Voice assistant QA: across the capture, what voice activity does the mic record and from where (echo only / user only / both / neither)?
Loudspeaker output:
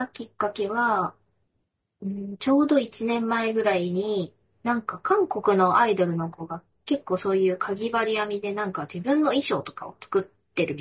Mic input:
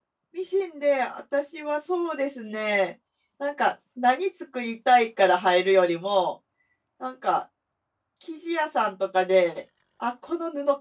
user only